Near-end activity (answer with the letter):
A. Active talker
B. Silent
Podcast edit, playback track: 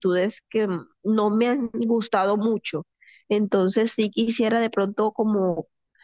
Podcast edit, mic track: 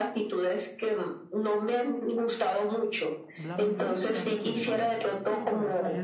A